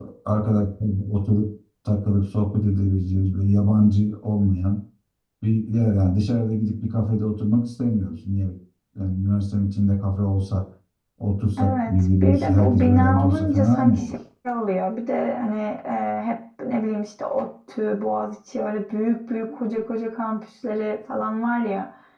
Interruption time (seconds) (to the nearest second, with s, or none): 12 s